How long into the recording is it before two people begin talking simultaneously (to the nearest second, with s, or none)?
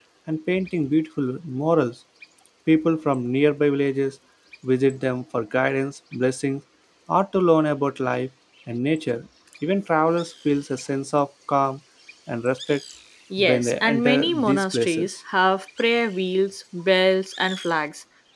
13 s